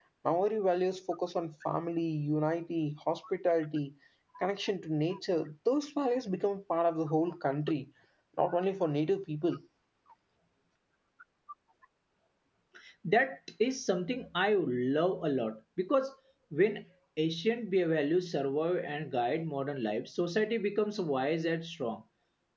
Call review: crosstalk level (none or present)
none